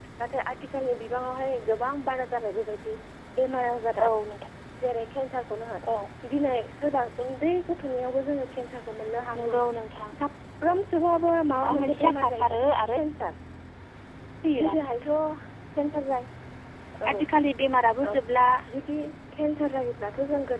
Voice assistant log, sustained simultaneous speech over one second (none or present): present